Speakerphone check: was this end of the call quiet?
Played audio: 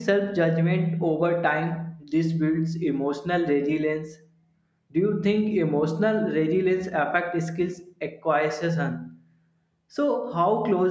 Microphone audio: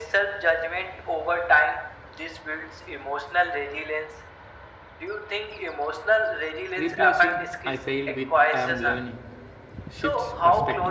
No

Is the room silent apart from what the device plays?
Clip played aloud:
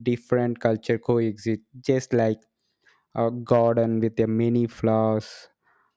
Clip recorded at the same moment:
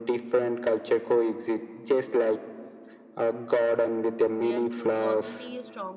No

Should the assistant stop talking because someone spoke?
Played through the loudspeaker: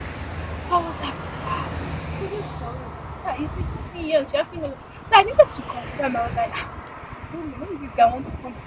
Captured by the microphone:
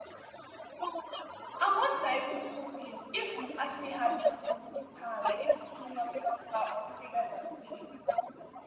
Yes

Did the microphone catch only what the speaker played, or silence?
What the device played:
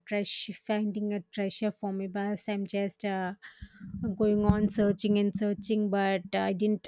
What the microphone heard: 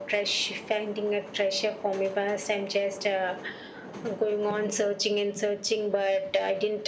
Yes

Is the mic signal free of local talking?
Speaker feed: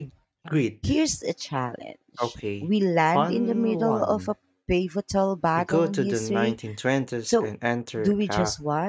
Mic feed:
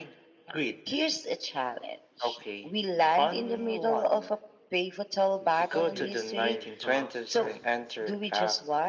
No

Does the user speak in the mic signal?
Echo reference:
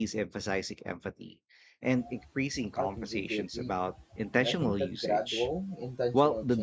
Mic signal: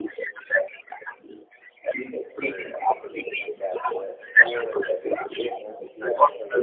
Yes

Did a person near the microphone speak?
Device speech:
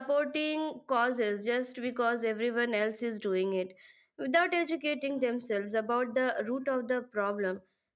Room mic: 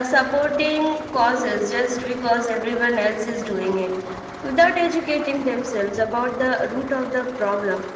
No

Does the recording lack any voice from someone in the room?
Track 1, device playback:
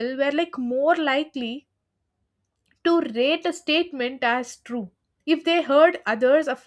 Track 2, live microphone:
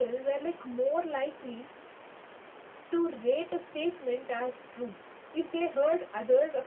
Yes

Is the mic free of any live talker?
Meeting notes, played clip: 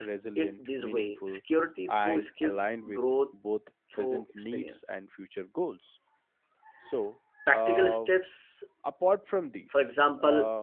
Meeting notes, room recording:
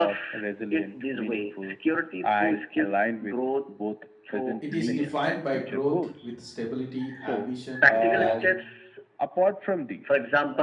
No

